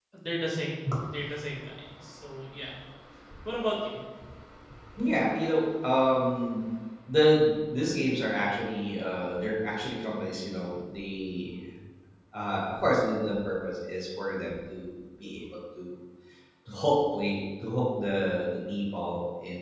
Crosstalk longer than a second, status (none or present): none